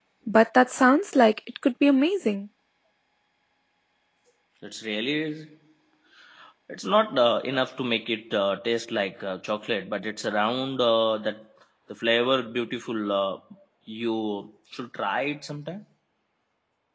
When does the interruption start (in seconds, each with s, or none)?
none